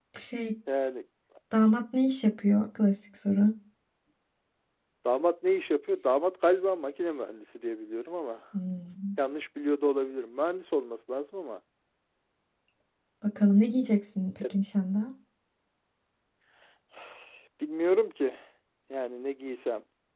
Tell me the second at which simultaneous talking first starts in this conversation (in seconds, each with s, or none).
none